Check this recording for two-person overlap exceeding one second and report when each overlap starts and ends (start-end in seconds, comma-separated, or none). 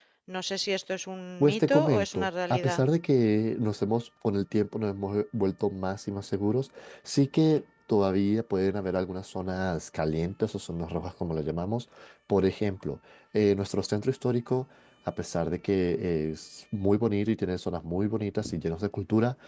1.4-2.8